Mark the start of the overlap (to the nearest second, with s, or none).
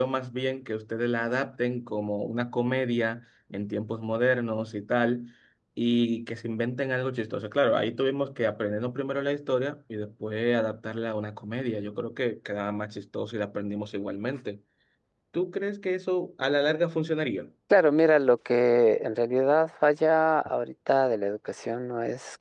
none